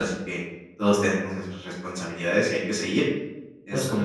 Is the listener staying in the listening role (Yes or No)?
Yes